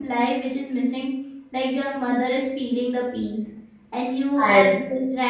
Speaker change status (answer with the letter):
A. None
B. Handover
A